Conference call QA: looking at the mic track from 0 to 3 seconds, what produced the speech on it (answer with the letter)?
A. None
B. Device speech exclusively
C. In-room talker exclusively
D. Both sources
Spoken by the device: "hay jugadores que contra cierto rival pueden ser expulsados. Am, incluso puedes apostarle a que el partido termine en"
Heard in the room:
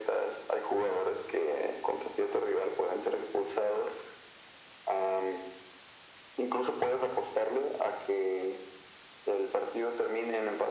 B